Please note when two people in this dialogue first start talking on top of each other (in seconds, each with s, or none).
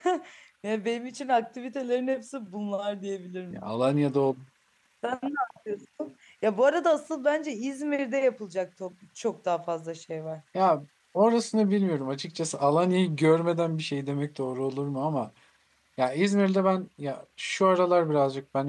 none